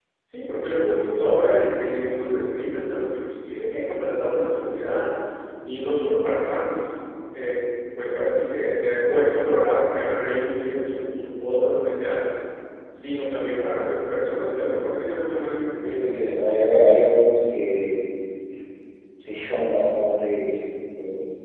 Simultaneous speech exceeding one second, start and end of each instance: none

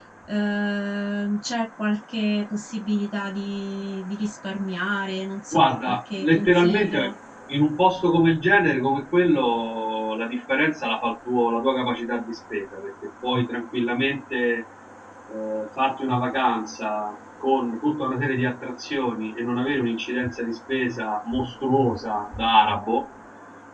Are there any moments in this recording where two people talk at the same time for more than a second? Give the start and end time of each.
5.5-7.1

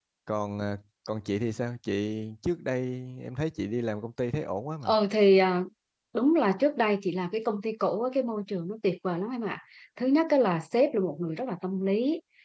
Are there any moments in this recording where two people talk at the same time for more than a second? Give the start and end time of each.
none

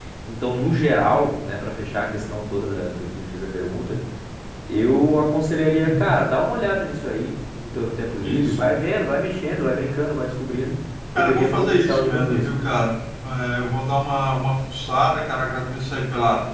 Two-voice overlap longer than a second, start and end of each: 11.2-12.5

